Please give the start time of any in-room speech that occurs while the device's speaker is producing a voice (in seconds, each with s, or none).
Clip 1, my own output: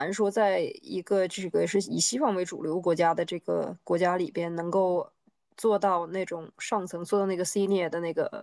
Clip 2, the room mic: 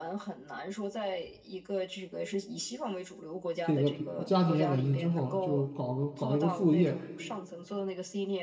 3.6 s